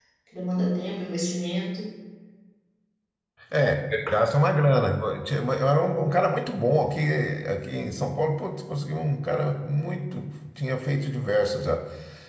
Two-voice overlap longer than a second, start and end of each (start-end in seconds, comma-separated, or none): none